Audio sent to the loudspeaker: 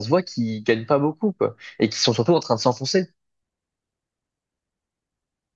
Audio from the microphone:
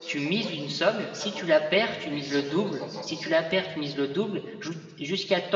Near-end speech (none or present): present